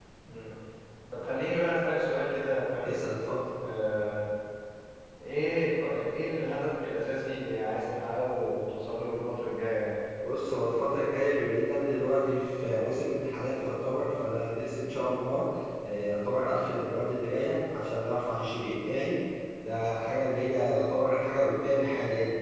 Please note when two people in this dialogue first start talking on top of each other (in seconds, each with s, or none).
none